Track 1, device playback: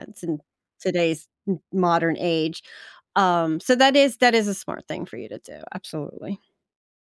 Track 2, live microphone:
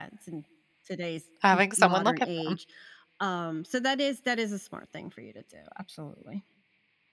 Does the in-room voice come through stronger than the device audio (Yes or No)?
Yes